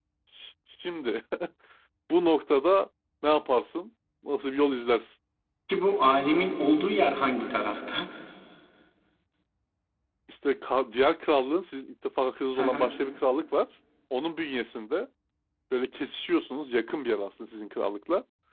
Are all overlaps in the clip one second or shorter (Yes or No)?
Yes